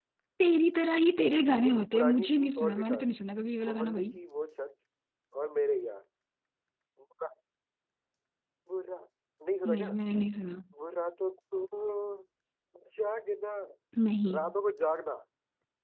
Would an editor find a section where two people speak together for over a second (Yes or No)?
Yes